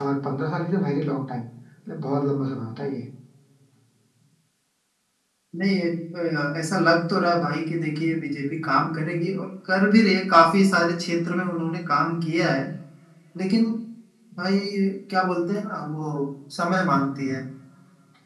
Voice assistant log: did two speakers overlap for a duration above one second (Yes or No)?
No